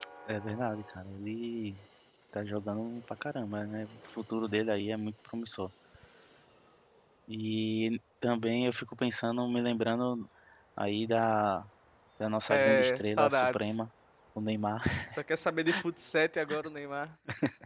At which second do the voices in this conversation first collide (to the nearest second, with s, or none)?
12 s